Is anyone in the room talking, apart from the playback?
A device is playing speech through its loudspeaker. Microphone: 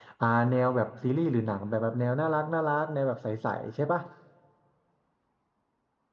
Yes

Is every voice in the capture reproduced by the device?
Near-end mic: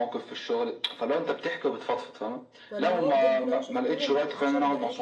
No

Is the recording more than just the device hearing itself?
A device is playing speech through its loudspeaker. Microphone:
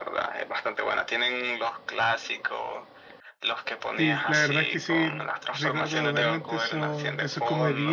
Yes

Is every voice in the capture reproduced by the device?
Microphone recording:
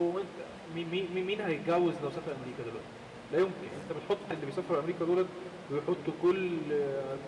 No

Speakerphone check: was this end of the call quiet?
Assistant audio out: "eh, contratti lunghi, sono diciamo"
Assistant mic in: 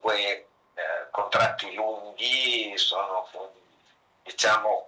Yes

